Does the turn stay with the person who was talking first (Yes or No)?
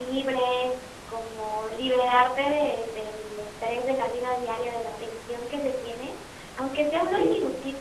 Yes